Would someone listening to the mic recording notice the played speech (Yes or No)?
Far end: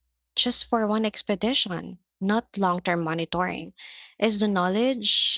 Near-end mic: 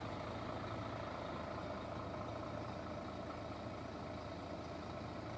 No